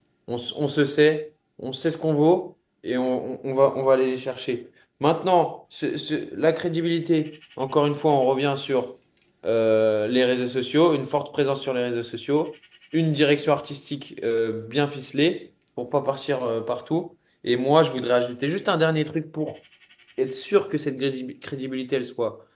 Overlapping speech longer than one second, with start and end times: none

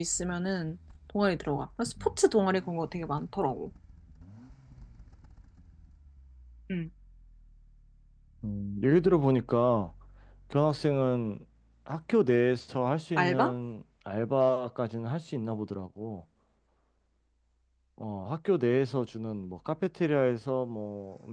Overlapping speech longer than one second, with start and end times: none

